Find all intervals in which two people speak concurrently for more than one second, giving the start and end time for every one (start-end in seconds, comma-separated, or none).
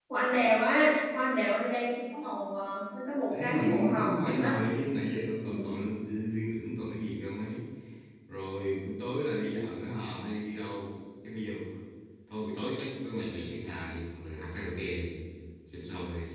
3.3-4.6